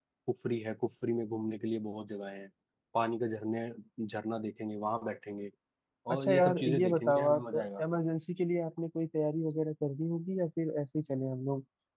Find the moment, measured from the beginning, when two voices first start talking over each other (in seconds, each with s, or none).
6.1 s